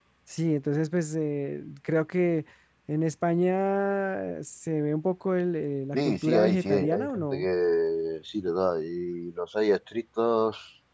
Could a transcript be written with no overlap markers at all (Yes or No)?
No